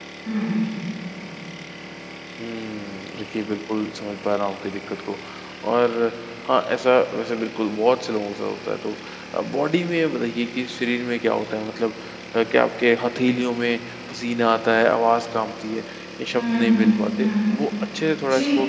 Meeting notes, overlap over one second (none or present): present